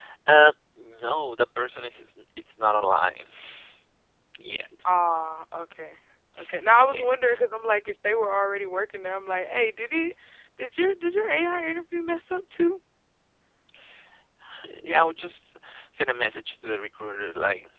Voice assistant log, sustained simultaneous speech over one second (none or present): none